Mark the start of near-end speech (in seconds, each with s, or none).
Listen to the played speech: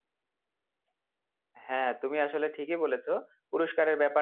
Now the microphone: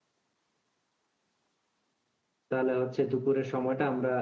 2.5 s